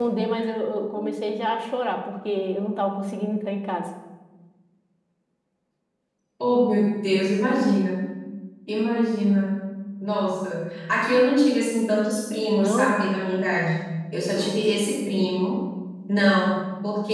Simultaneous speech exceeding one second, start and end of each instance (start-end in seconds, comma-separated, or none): none